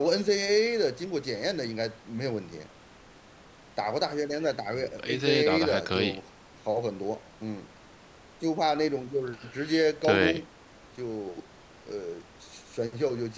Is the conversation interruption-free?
No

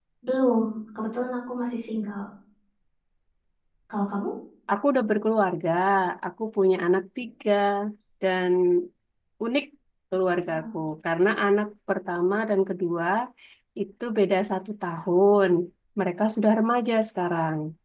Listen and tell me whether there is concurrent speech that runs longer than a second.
No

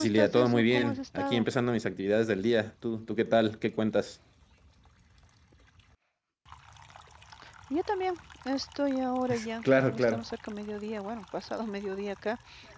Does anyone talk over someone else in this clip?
Yes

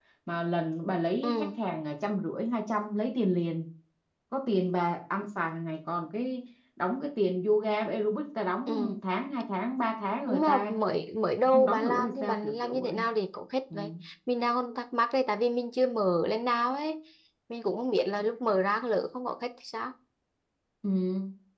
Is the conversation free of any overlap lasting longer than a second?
No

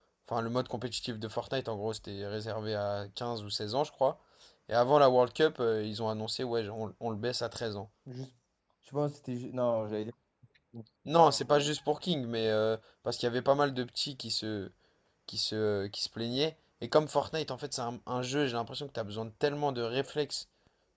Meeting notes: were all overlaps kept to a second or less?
Yes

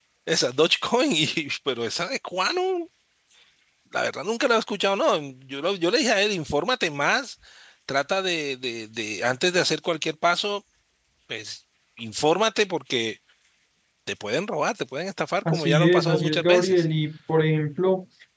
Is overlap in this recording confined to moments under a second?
No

